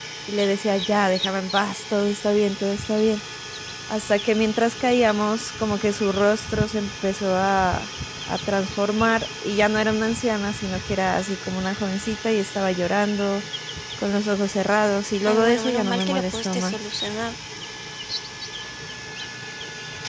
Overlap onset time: 15.3 s

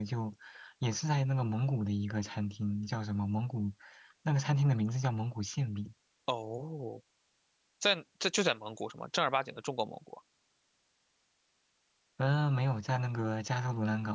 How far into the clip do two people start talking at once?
none

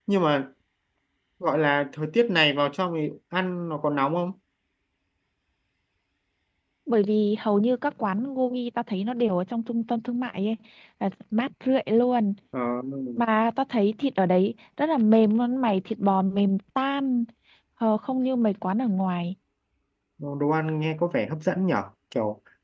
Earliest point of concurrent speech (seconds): none

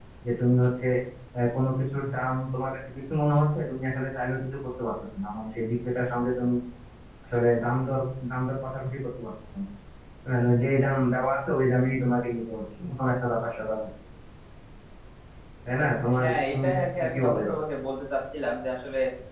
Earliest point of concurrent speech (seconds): 16.2 s

